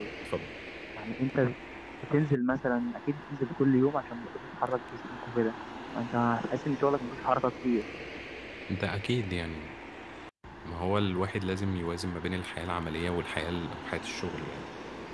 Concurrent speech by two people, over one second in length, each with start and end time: none

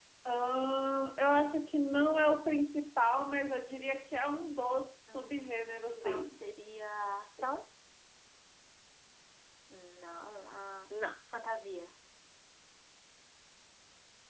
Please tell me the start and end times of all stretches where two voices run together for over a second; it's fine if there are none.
5.1-6.4

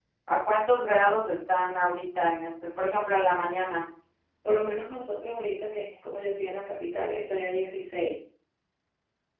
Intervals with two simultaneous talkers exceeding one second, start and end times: none

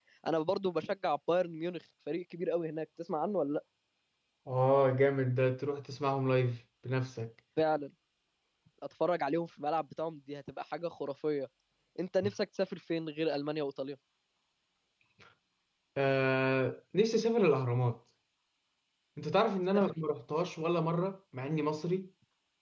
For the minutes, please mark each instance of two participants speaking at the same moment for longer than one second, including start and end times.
none

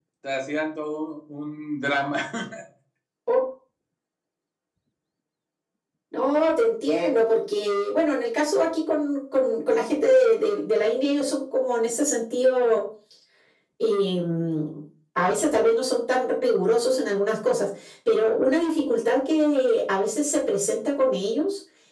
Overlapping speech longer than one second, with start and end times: none

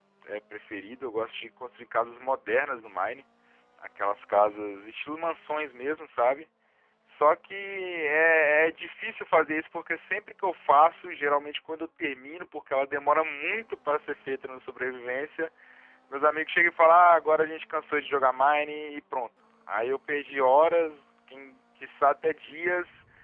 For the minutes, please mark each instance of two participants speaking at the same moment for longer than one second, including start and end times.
none

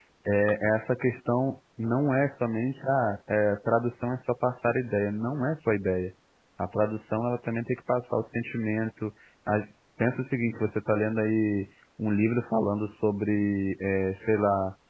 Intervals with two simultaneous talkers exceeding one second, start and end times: none

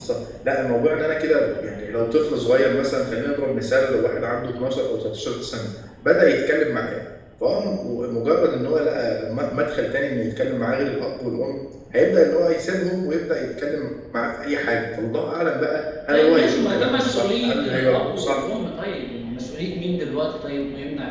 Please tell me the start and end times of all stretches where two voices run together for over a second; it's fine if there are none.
16.1-18.4

